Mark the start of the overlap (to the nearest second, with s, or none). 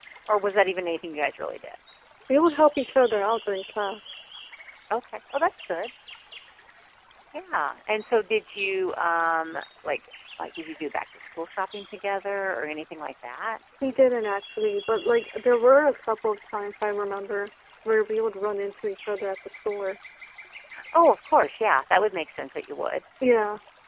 none